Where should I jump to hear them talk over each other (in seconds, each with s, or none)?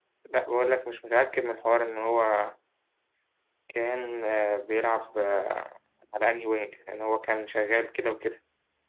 none